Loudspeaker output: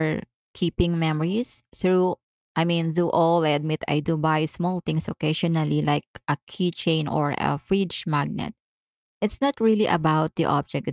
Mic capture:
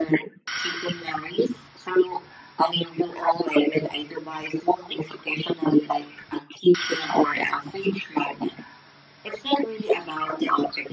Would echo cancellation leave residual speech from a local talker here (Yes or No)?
No